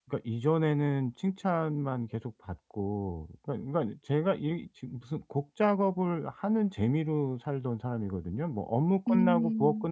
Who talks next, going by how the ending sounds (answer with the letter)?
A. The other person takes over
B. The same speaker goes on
B